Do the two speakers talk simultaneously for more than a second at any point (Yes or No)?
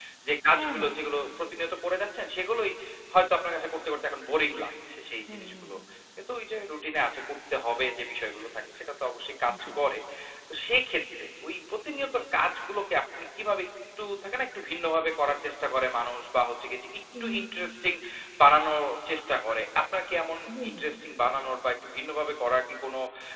No